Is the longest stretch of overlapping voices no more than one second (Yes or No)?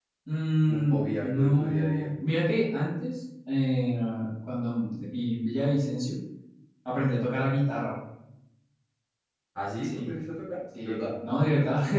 No